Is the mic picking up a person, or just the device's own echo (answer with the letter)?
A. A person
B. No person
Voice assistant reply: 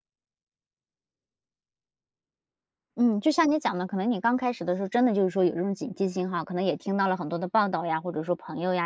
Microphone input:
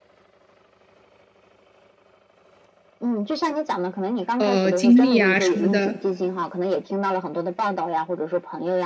A